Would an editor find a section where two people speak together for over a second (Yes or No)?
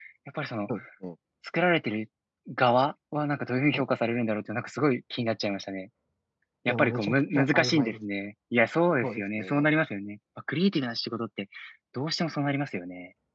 Yes